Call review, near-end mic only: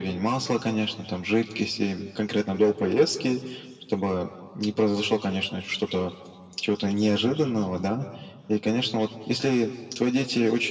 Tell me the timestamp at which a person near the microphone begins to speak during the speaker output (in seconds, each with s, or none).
none